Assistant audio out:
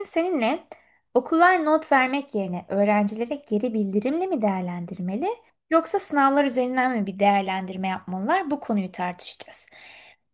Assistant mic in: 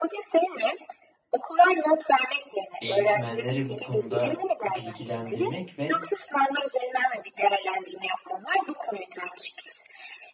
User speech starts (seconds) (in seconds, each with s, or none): 2.8 s